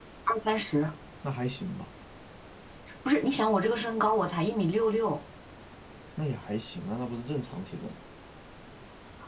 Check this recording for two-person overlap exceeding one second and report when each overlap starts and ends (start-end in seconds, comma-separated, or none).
none